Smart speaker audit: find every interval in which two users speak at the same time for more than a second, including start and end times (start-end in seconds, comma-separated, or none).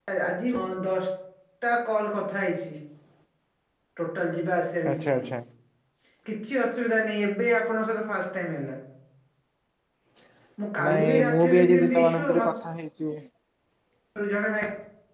10.8-12.5